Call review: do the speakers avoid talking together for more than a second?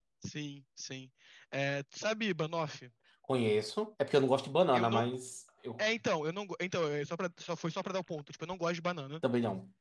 Yes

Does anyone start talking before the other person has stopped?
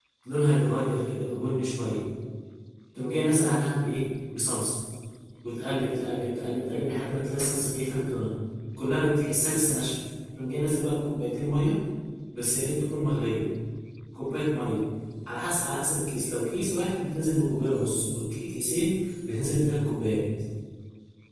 No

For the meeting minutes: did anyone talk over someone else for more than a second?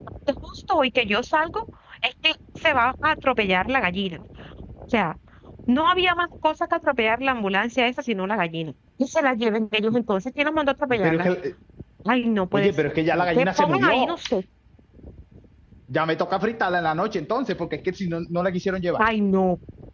Yes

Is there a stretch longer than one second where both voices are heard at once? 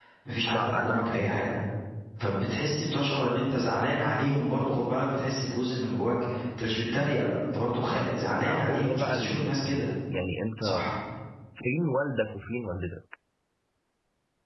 Yes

